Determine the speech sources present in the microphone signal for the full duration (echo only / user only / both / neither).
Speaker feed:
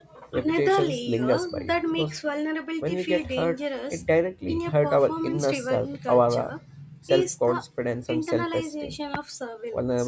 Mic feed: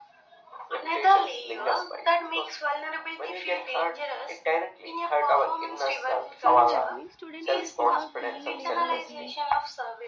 both